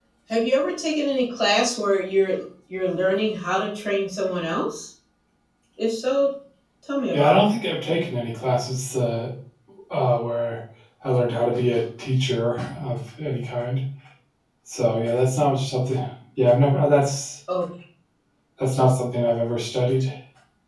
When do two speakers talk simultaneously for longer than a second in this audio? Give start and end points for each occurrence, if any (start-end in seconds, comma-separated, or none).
none